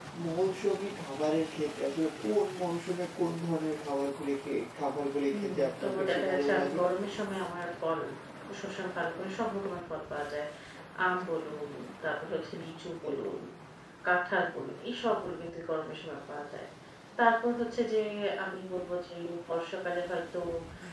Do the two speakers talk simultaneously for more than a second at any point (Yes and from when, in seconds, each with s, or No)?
Yes, from 5.3 s